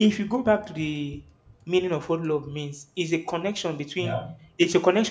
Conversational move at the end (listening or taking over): listening